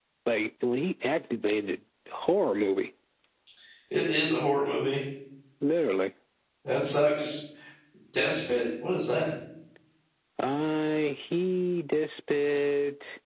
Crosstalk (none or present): none